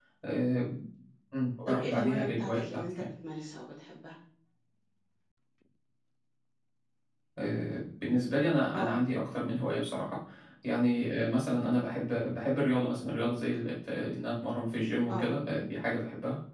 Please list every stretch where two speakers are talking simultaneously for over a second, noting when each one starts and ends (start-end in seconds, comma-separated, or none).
1.7-3.1